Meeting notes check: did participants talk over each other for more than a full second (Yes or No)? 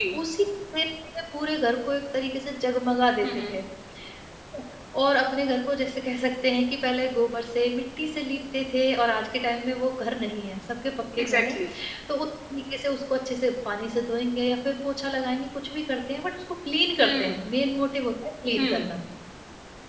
No